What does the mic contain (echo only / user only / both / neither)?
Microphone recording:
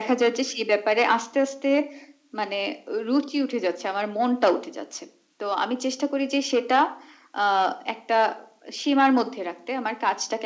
echo only